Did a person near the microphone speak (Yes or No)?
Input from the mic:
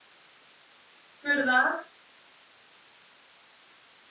Yes